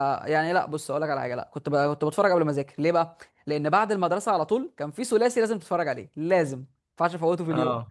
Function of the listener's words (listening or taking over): listening